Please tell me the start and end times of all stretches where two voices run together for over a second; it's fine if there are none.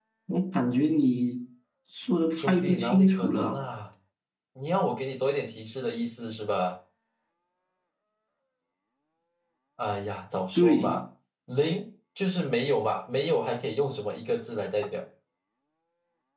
2.4-3.6

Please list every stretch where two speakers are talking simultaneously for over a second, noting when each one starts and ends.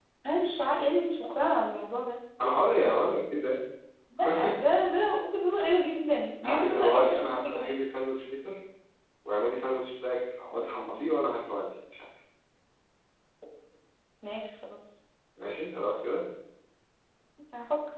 6.4-7.7

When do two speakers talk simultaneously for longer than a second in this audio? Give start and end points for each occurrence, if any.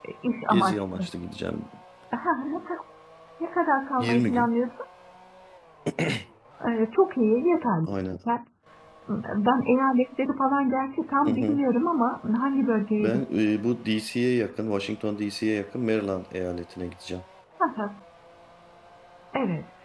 none

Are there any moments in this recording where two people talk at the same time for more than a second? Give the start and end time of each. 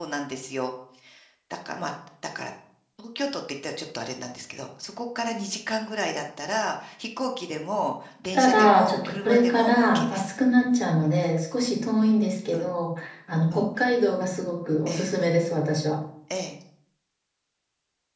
8.3-10.3

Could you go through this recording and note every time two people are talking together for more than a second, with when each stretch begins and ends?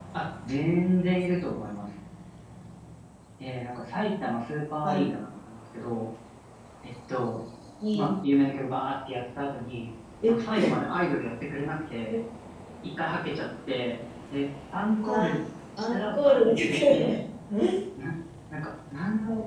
15.8-17.2

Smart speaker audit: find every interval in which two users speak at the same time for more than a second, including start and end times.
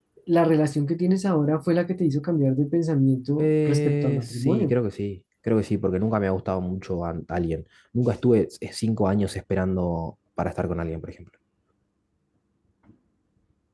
3.4-4.7

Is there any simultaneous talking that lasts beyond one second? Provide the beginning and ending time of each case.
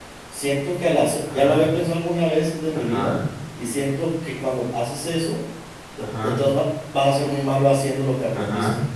none

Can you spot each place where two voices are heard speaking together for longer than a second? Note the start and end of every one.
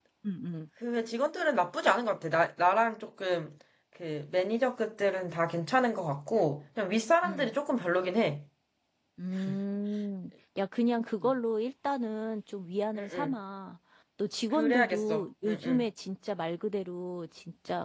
14.5-15.8

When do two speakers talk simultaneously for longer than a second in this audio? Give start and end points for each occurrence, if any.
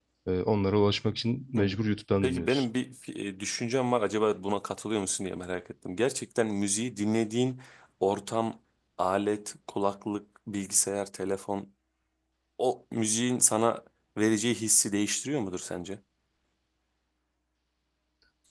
none

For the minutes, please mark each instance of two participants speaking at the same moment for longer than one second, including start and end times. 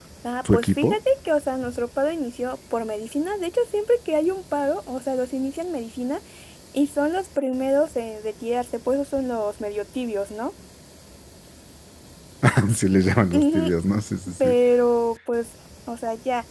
none

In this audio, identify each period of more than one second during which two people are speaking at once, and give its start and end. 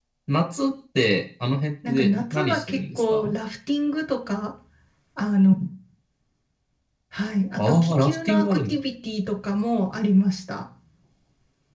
1.9-3.3, 7.6-8.8

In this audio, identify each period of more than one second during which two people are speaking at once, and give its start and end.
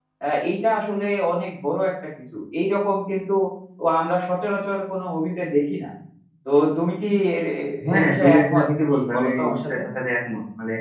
8.0-9.8

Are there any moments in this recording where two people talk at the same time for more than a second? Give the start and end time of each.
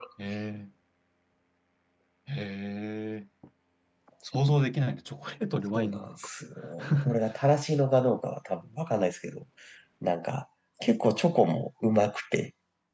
none

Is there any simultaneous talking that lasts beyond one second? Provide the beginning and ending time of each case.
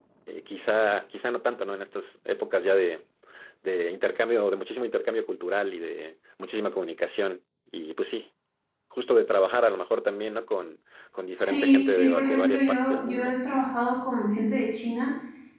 11.3-13.4

